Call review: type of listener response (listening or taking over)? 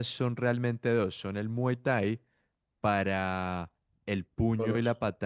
listening